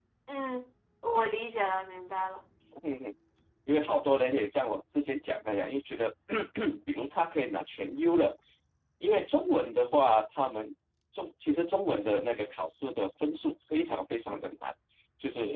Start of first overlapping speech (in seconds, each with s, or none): none